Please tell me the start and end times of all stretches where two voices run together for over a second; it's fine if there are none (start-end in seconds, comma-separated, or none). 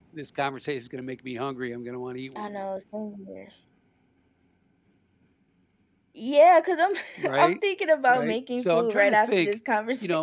8.1-9.6